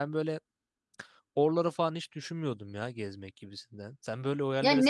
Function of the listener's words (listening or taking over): taking over